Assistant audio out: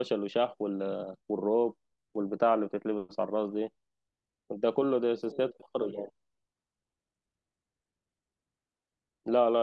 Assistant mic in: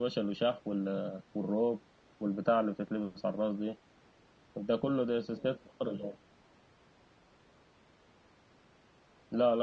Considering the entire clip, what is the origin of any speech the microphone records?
echo only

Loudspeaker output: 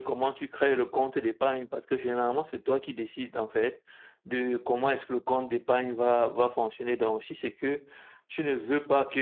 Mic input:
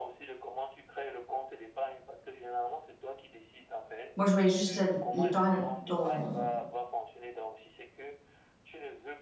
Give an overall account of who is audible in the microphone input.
both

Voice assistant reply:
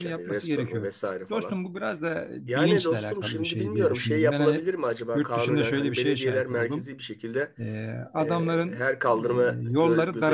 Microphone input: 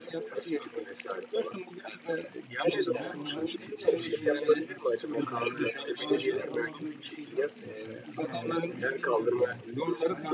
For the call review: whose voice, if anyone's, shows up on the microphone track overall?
both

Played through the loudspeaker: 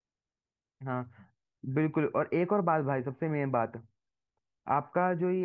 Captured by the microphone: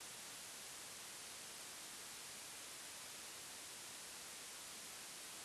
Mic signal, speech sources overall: neither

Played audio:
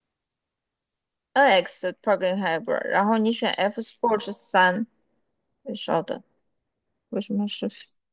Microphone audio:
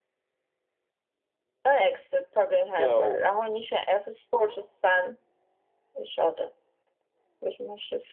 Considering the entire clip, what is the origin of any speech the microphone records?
both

